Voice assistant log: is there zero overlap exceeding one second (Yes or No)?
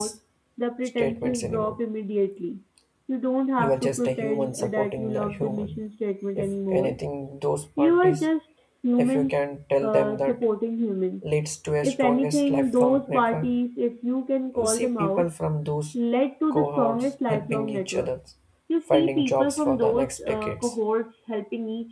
No